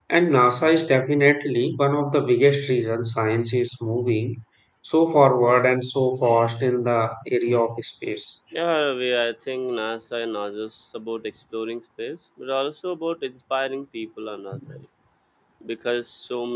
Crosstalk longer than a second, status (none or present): none